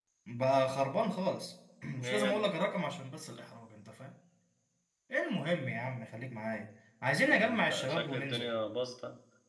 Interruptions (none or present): present